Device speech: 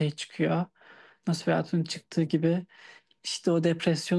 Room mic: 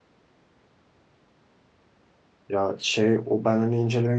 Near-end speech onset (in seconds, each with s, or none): 2.5 s